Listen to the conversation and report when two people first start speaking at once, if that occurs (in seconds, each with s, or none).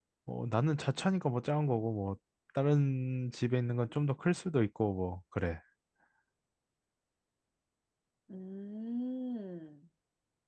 none